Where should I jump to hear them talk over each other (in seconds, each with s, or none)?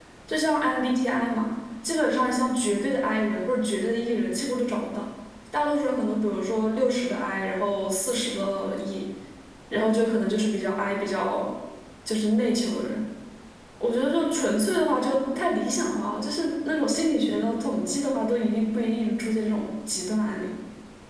none